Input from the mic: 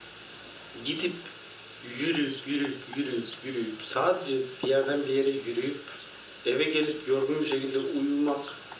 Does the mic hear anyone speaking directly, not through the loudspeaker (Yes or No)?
No